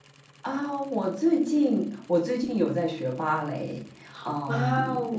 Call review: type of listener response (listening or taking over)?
listening